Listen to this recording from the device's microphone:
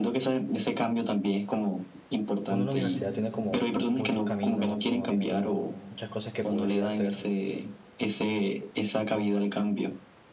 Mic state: both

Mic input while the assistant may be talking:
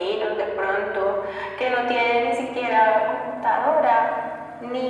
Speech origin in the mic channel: echo only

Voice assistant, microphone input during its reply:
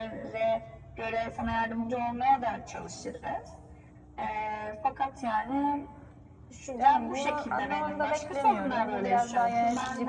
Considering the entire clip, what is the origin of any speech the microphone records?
both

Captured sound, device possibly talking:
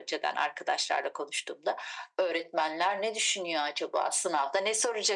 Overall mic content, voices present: echo only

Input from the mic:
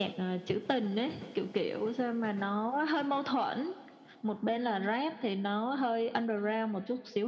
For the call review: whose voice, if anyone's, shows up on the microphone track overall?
both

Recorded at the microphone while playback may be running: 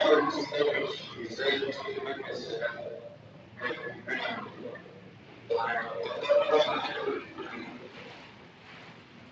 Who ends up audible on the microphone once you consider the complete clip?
echo only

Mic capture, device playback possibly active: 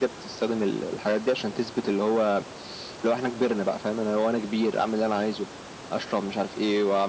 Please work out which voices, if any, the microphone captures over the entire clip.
echo only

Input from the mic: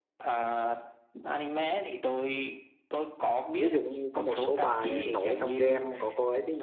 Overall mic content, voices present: both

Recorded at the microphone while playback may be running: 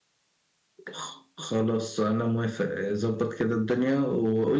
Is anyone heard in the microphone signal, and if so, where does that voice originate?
echo only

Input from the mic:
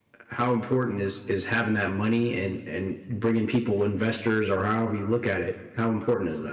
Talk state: user only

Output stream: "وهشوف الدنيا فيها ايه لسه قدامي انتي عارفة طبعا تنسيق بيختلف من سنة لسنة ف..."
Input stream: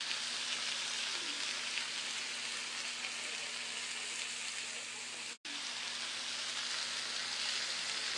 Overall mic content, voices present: neither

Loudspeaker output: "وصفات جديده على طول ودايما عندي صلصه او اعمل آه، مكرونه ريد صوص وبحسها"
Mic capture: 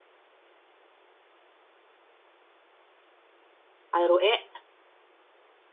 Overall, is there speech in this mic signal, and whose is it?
user only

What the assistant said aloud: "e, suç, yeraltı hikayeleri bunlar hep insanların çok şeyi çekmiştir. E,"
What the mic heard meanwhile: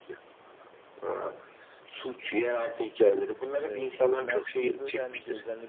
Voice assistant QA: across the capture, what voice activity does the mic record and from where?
both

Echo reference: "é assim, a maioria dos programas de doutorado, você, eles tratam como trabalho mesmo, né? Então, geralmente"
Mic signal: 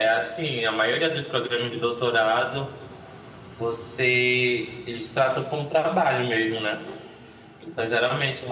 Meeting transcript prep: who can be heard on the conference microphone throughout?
echo only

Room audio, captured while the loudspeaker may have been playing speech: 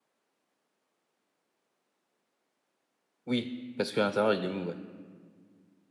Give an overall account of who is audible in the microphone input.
user only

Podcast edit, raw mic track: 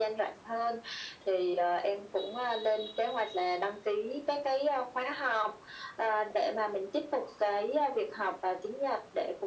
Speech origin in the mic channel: echo only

